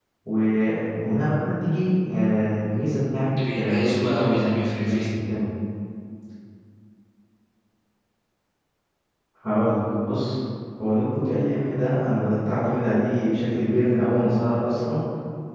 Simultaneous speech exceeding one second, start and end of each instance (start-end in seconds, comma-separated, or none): 3.5-5.0